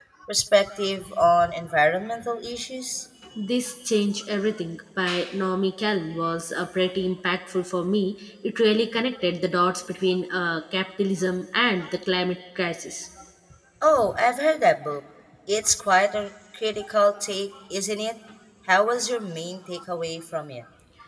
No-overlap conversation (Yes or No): Yes